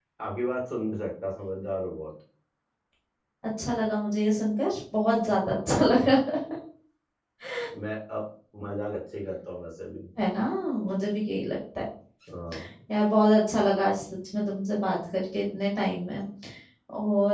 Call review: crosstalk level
none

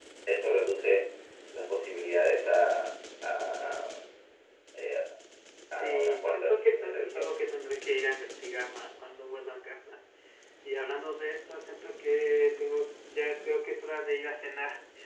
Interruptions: present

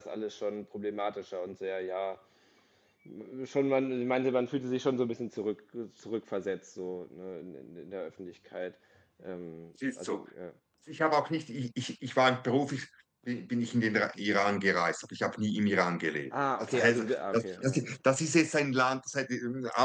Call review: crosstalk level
present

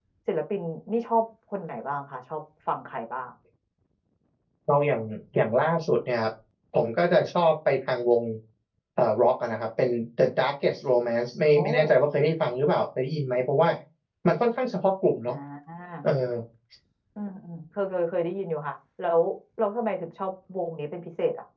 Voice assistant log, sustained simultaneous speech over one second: none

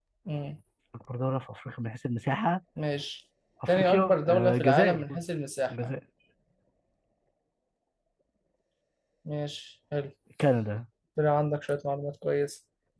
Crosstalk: present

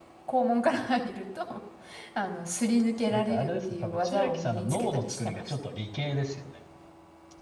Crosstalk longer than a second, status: present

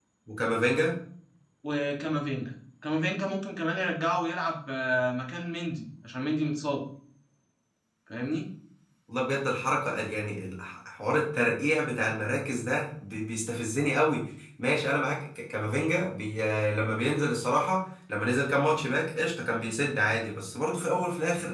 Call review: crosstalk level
none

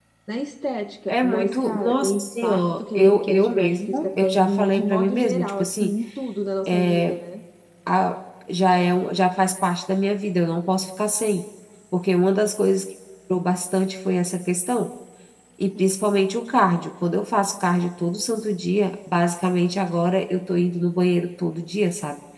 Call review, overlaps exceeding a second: present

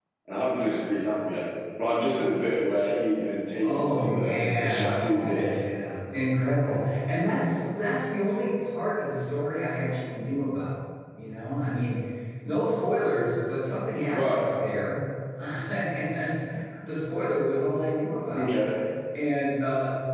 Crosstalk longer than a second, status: present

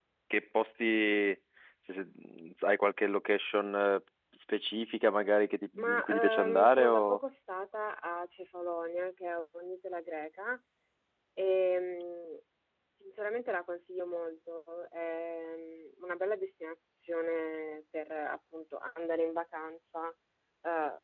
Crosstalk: present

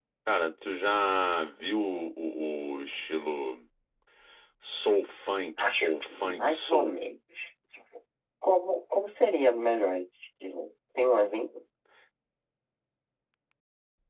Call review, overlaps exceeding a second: present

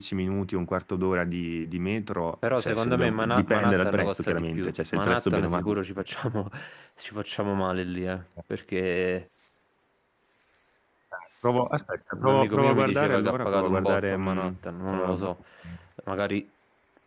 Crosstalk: present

